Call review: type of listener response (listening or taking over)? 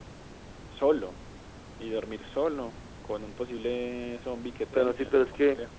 taking over